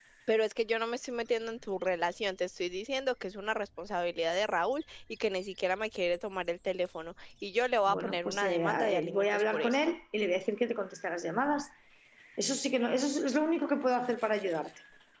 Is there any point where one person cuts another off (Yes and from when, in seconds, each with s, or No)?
Yes, from 7.9 s